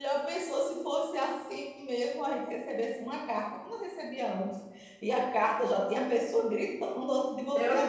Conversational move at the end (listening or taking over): taking over